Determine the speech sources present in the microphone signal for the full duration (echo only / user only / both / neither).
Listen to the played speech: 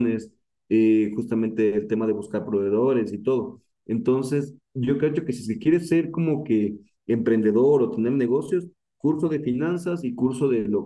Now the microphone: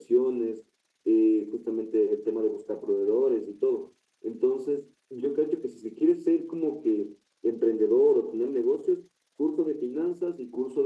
echo only